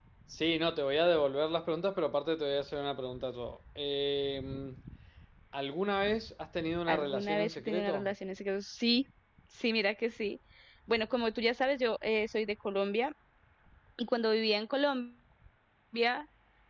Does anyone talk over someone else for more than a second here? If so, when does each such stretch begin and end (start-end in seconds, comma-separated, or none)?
6.9-8.1